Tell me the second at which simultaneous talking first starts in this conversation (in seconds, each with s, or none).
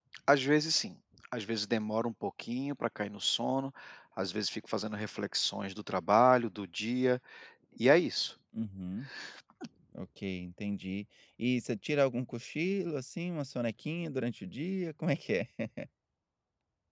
none